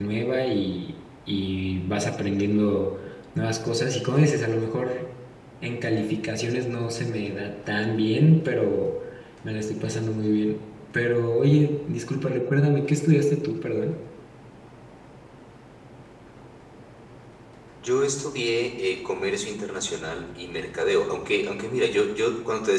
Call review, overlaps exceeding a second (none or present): none